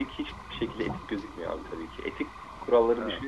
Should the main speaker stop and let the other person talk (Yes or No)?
No